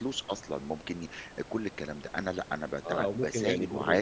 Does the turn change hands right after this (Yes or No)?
Yes